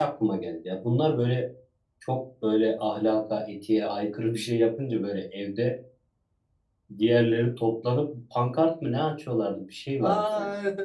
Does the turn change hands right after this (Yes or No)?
Yes